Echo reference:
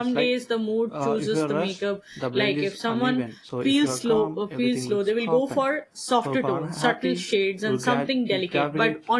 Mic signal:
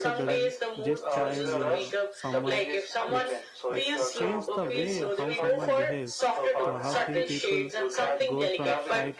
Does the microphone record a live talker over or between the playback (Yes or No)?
Yes